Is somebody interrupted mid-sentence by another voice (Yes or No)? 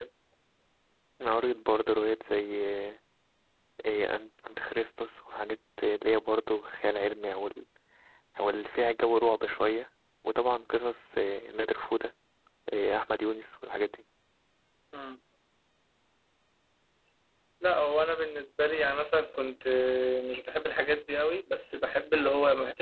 No